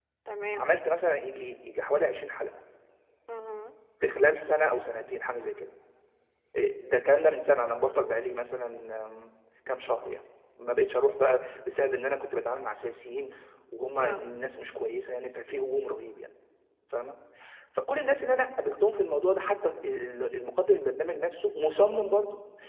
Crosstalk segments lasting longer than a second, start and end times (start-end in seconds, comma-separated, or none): none